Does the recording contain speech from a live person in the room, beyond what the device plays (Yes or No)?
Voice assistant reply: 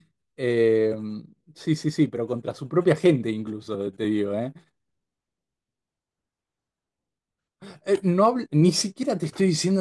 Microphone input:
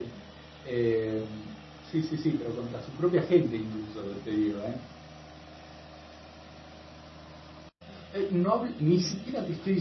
No